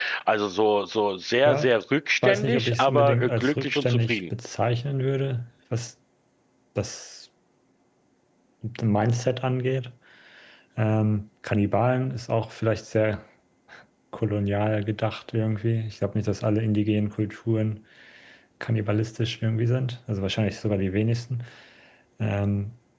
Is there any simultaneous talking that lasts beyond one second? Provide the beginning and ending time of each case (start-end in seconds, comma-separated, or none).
2.2-4.2